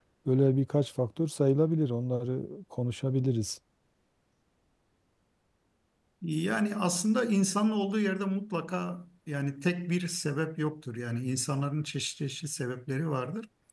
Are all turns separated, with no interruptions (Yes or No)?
Yes